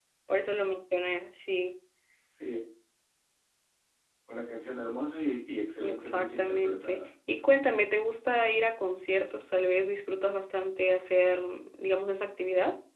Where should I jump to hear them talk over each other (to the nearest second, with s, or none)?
6 s